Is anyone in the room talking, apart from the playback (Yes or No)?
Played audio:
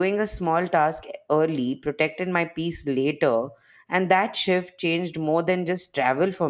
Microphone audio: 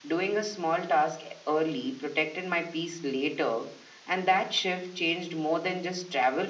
No